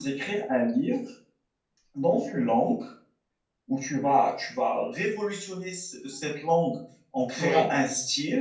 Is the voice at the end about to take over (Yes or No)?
No